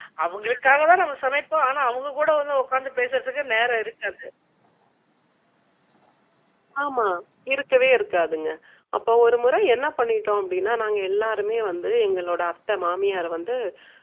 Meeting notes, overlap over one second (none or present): none